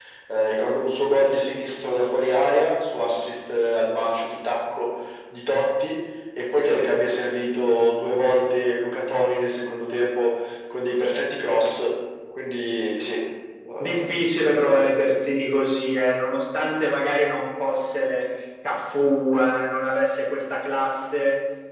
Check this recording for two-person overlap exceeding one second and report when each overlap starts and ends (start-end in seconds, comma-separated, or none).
none